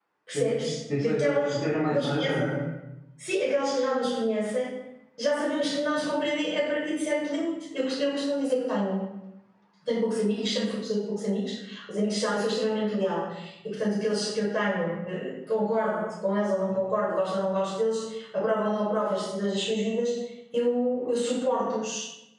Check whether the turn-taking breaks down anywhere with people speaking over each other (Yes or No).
Yes